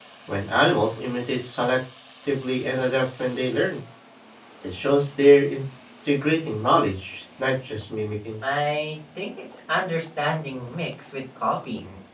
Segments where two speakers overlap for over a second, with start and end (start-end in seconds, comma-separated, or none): none